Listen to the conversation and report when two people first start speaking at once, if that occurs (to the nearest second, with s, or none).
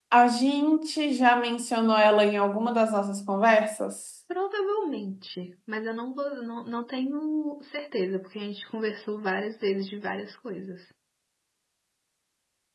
none